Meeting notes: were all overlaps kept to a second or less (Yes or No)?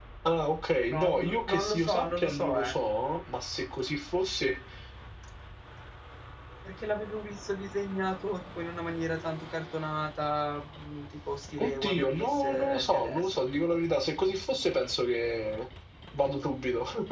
No